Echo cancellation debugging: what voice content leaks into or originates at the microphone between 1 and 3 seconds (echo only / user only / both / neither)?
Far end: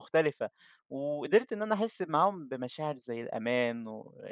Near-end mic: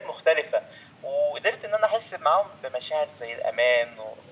echo only